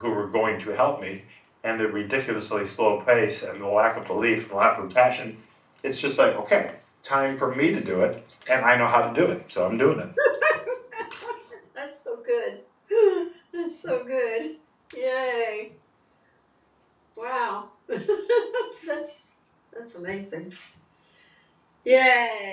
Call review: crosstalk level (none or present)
none